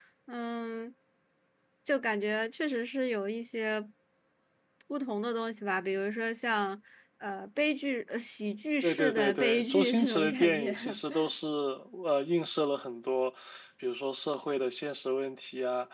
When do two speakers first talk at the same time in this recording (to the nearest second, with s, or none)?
9 s